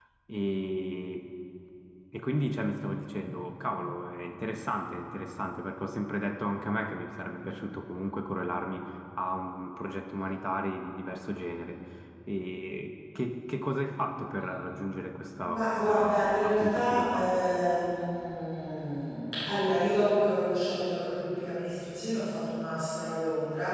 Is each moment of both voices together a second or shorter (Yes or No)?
No